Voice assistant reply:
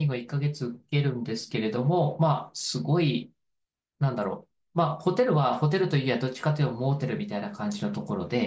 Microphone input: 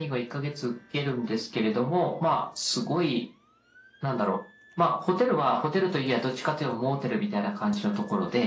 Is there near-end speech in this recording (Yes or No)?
No